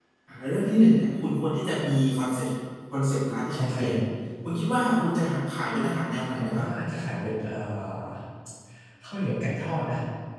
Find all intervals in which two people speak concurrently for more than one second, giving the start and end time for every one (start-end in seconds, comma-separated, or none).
none